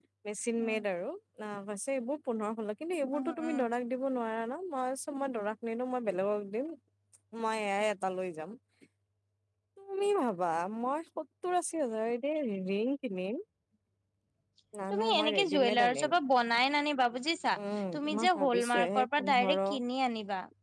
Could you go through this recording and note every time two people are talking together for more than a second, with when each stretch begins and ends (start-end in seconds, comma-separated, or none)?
14.9-16.1, 18.0-19.6